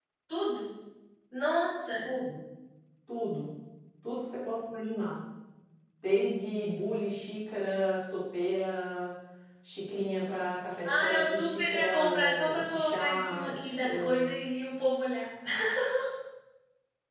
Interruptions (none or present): present